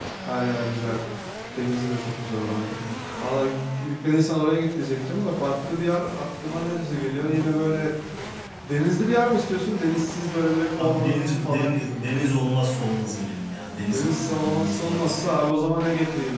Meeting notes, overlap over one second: present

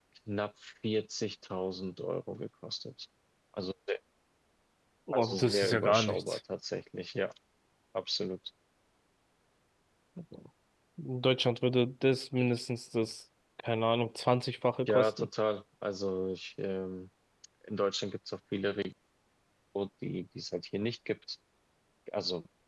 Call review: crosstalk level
present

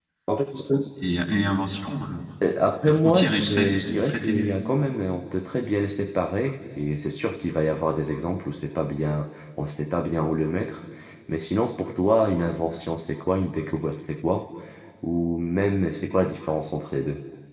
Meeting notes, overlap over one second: present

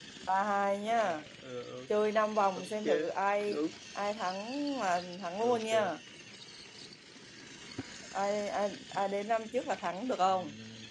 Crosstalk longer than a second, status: none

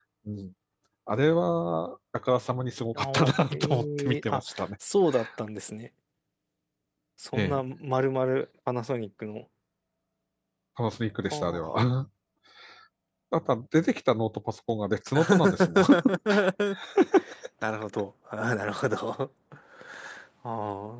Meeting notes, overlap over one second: present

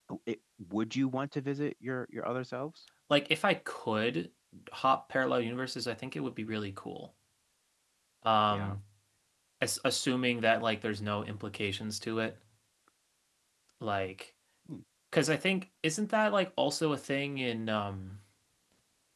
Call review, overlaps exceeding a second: none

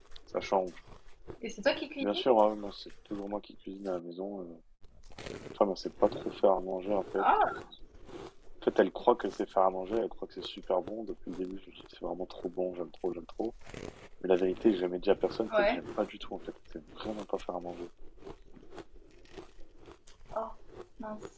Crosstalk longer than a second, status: none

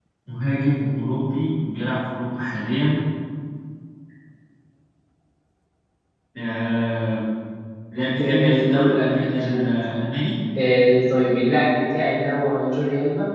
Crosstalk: present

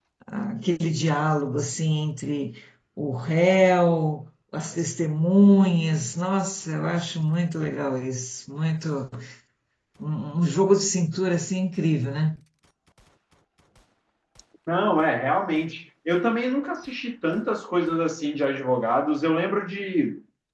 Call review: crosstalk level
none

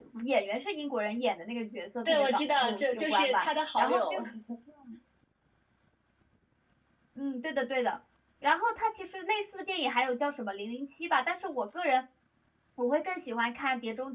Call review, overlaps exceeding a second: present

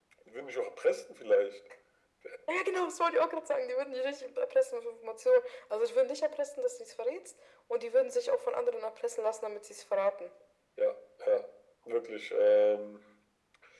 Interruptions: none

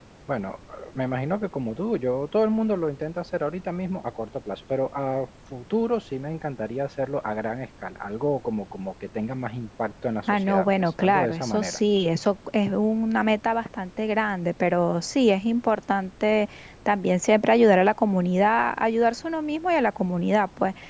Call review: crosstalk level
present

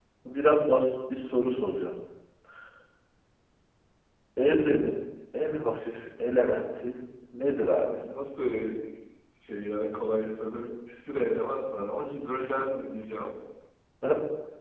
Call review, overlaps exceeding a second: none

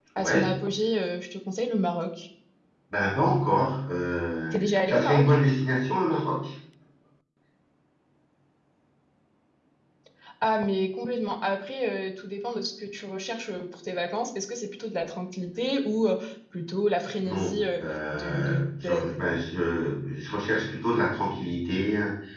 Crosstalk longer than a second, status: present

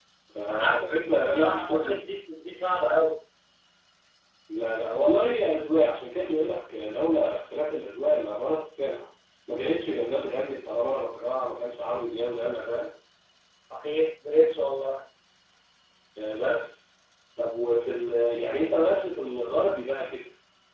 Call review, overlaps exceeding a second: present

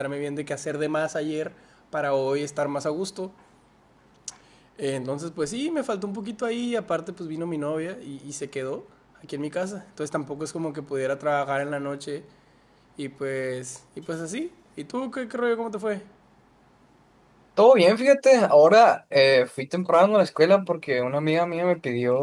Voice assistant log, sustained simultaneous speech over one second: none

